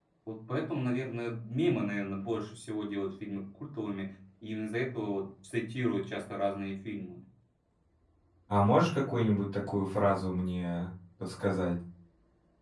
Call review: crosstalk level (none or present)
none